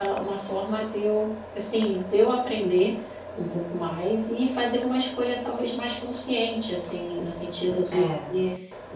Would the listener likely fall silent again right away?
Yes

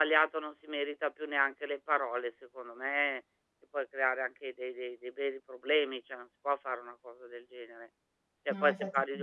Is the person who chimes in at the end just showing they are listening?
Yes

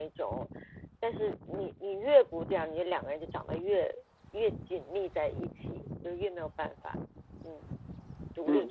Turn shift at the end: Yes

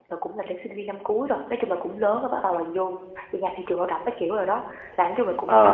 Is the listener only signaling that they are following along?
Yes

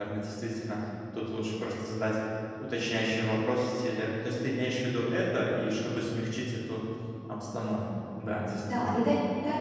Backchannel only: No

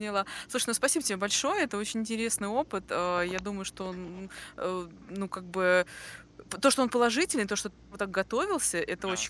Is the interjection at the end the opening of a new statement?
No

